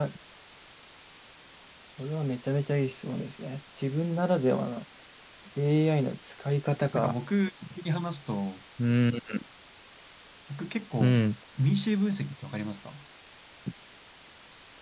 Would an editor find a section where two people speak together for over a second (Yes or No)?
No